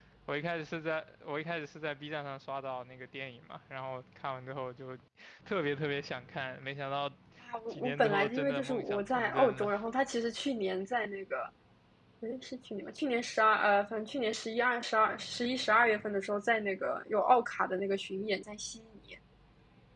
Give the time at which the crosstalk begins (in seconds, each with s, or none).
7.7 s